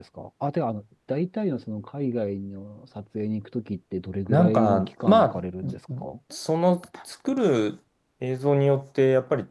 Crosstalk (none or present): present